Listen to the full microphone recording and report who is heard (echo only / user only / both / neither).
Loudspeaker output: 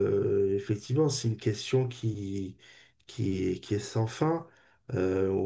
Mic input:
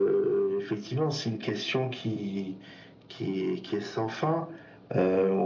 echo only